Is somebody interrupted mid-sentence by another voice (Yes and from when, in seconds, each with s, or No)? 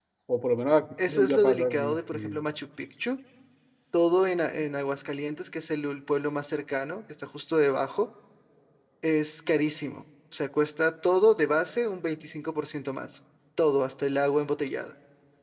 Yes, from 1.0 s